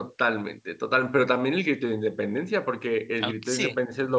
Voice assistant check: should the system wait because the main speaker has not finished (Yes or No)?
Yes